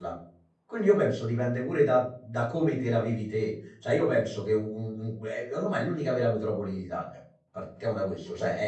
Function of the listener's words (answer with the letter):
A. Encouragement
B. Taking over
A